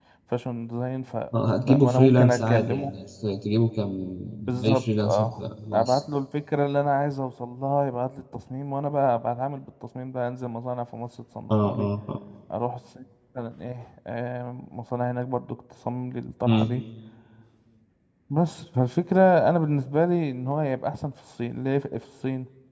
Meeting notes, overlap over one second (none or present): present